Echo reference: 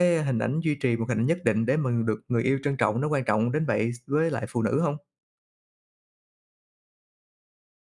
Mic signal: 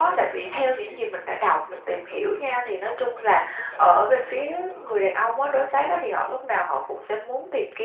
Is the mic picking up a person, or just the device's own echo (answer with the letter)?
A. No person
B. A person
B